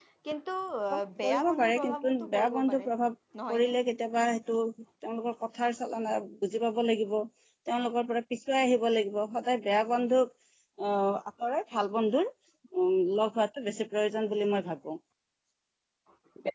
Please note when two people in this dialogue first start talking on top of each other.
1.2 s

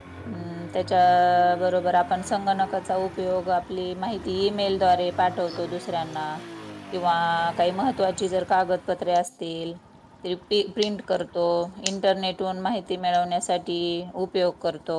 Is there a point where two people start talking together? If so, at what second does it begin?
none

